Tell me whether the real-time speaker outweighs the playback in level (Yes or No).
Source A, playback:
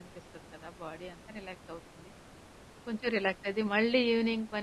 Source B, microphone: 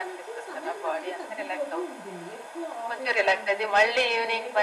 No